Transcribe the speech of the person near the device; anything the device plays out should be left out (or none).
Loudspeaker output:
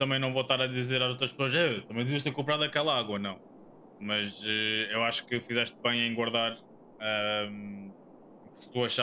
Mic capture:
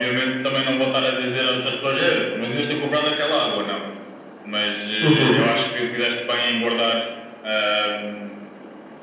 Uhum.